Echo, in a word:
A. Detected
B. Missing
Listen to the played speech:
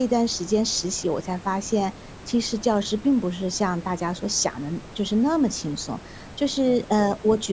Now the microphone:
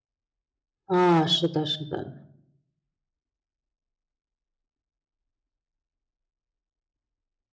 B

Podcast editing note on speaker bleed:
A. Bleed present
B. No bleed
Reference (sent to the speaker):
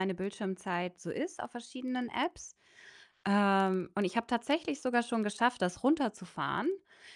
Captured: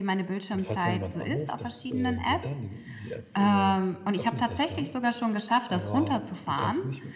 A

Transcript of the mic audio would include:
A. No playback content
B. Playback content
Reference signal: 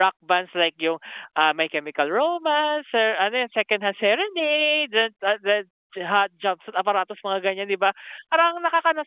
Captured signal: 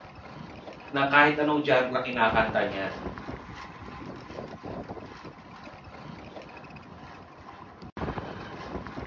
A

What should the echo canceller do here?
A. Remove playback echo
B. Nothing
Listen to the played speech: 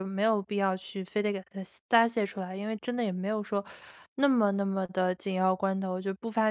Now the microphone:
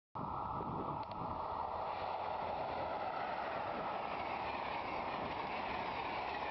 B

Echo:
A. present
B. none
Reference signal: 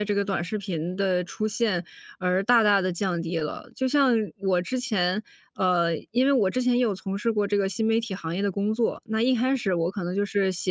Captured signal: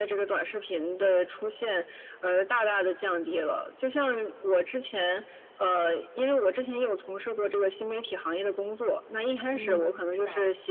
A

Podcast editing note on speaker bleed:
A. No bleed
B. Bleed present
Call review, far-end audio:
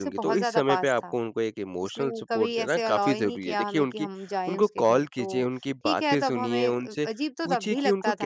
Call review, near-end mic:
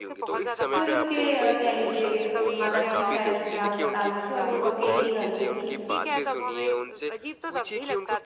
B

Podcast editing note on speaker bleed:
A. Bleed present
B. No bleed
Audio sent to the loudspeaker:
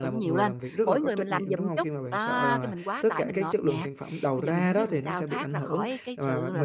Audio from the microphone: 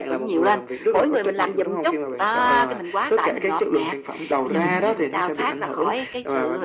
A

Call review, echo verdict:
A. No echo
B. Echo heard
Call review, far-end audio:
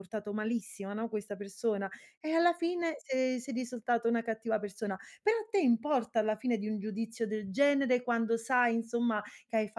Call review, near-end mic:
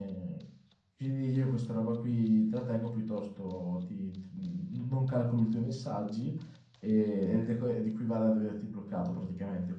A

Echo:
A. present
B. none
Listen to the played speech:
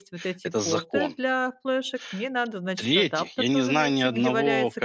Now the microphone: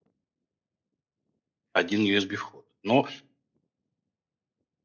B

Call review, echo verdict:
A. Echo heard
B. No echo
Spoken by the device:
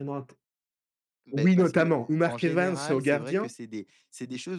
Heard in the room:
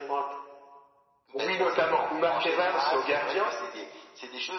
A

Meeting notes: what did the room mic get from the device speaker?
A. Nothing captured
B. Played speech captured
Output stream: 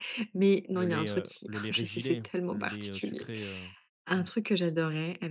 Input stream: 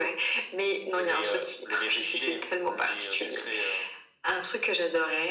B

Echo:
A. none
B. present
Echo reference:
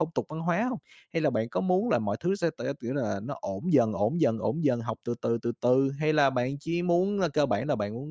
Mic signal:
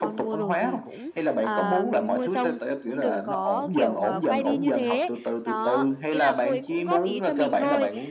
B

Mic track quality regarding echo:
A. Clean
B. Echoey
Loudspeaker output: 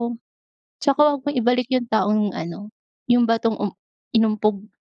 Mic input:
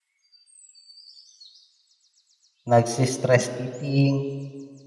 A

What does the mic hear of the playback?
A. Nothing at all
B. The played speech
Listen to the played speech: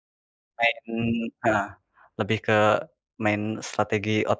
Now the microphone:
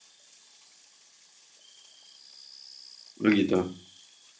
A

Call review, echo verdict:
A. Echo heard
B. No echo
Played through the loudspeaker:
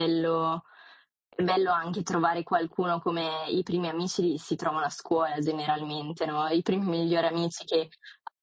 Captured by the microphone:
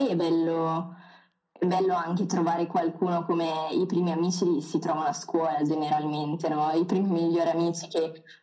A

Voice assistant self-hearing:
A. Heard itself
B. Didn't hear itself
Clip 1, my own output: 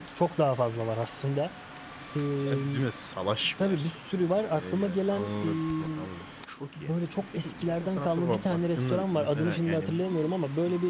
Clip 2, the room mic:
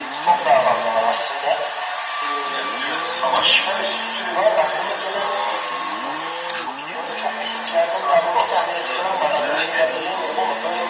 A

